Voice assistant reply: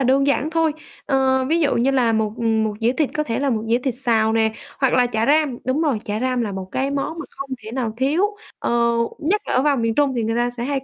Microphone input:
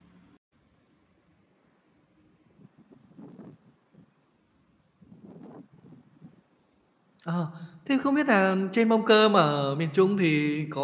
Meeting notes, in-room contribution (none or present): present